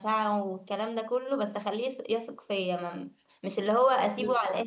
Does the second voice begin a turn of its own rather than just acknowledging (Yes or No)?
No